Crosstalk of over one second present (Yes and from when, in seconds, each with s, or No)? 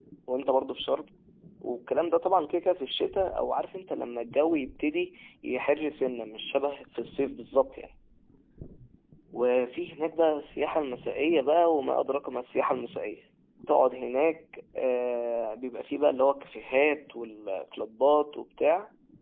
No